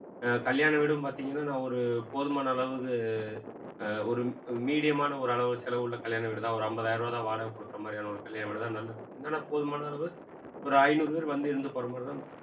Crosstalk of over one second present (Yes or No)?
No